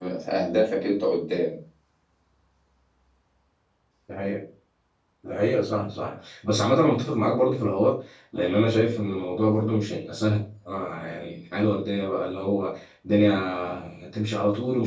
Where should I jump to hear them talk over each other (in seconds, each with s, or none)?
none